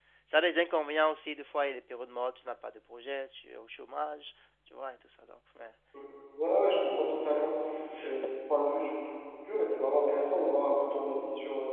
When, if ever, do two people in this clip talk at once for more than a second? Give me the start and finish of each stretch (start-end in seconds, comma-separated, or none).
none